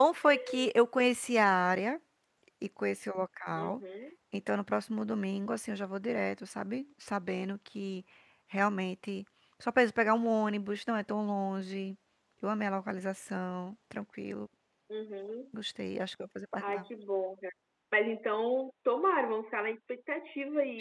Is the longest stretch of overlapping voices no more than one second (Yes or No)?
Yes